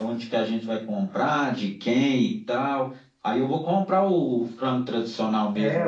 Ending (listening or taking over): taking over